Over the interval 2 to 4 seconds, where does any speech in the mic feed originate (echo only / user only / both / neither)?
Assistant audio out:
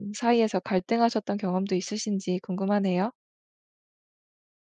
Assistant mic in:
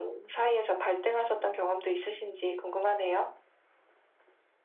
echo only